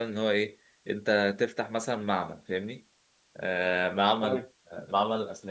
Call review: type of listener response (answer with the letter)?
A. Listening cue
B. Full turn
A